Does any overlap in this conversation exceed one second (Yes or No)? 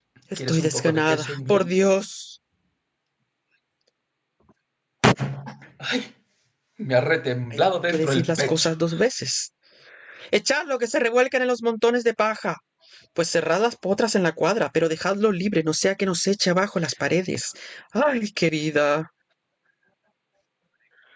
Yes